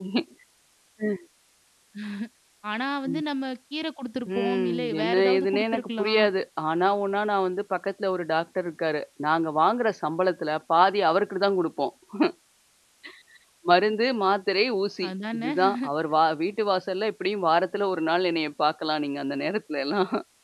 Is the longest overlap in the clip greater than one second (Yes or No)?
Yes